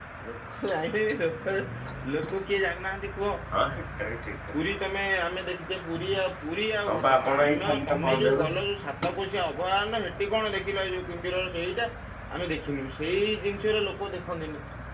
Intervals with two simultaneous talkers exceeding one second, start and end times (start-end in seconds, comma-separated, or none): 6.9-8.4